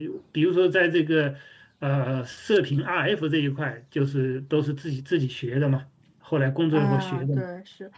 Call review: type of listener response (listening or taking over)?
taking over